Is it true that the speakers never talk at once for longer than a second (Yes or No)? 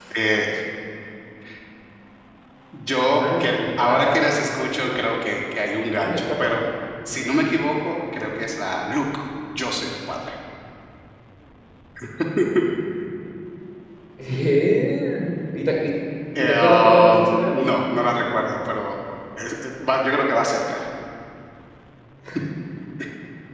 No